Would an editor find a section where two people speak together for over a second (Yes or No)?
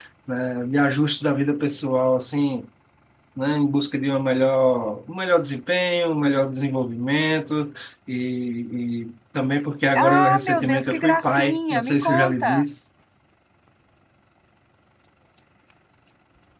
Yes